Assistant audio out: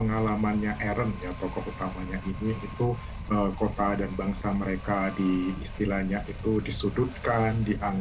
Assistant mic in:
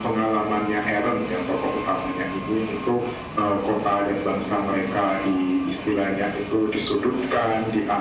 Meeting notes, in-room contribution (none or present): none